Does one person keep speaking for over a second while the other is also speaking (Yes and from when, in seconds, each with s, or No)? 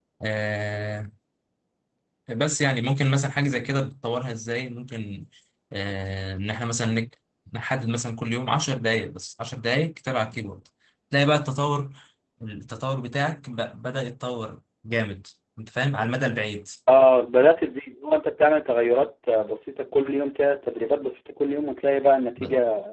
No